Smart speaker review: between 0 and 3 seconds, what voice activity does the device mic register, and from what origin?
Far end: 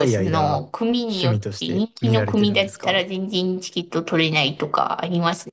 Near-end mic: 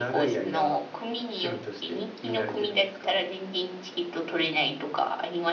echo only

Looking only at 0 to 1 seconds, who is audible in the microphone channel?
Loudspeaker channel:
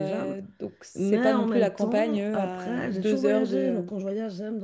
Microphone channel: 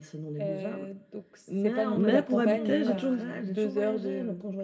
echo only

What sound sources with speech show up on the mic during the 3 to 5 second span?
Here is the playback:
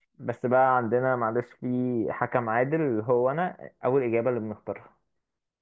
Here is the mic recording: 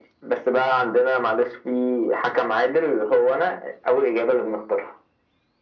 echo only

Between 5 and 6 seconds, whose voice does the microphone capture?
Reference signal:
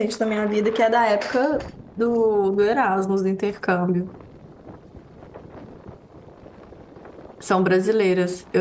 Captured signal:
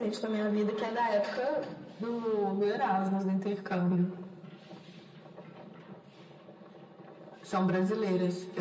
neither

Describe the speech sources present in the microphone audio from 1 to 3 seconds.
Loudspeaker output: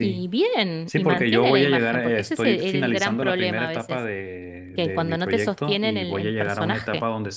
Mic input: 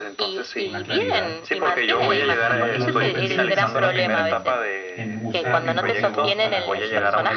both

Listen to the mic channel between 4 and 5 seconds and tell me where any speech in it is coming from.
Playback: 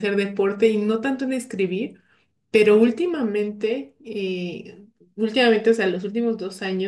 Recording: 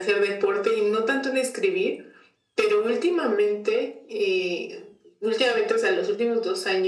echo only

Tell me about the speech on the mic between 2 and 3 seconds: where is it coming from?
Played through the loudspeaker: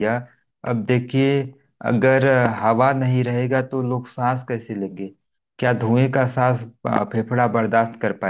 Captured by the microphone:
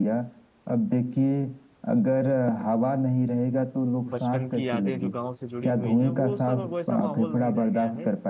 echo only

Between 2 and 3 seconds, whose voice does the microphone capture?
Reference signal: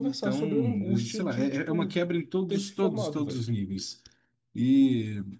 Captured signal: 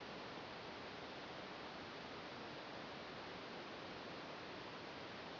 neither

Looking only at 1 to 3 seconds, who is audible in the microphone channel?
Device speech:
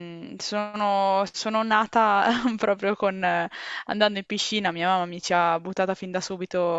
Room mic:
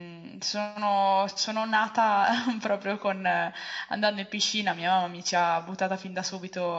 echo only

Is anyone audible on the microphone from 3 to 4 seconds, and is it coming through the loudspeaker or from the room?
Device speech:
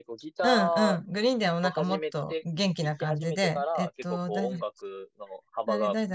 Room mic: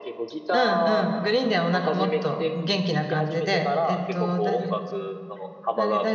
echo only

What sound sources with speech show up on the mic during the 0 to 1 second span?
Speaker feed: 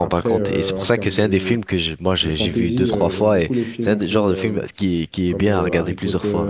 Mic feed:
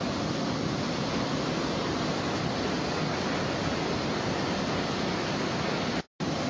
neither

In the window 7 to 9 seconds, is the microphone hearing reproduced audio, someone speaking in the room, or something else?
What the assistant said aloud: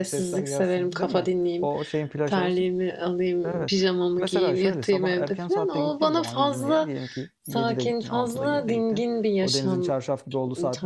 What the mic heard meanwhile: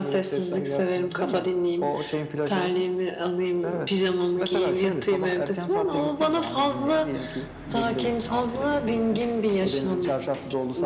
echo only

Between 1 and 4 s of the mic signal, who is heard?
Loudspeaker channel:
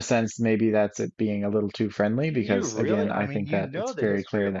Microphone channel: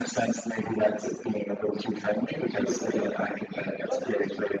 echo only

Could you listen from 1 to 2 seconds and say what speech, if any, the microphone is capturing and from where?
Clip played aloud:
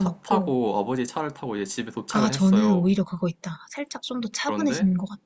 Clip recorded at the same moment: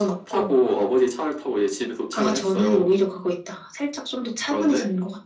echo only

